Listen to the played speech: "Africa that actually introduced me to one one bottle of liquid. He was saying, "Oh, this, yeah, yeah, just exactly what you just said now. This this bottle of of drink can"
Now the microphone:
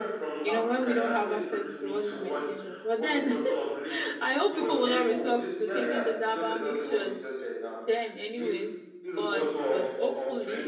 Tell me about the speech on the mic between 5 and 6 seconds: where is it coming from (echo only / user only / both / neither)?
both